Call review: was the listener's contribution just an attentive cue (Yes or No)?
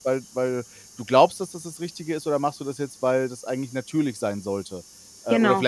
Yes